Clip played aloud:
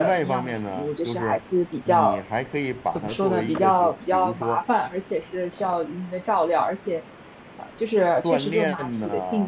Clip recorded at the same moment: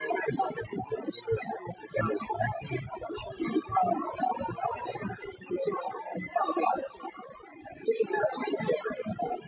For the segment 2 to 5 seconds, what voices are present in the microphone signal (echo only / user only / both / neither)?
echo only